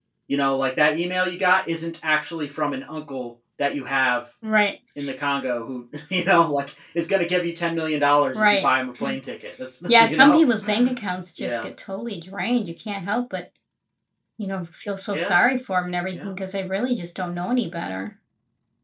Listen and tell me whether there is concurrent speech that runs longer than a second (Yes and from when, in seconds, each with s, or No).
No